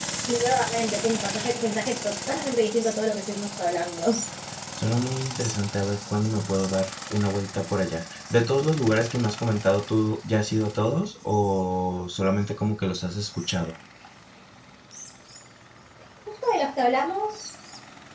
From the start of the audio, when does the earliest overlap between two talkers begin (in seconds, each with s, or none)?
none